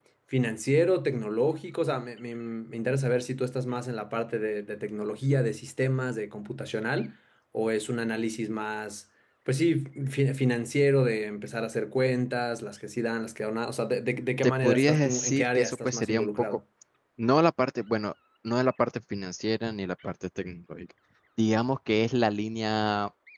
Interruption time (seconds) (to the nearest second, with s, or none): 14 s